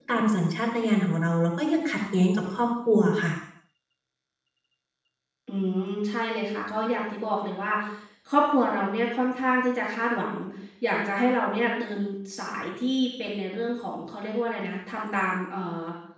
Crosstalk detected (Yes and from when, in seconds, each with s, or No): No